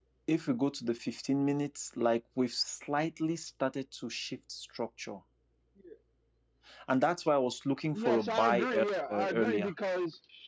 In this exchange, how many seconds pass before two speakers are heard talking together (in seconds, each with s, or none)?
7.9 s